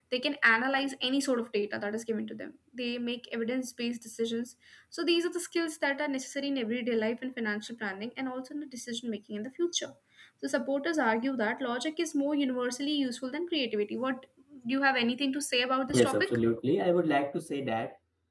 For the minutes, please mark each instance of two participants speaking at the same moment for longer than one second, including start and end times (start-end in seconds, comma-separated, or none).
none